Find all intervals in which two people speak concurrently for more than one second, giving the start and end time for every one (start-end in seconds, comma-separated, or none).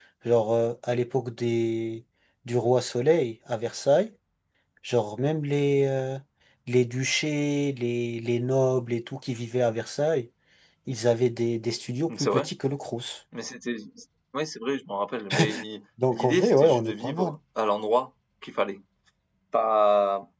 16.1-17.4